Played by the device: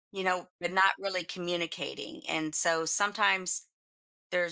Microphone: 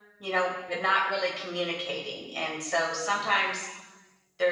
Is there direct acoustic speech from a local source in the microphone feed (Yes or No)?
Yes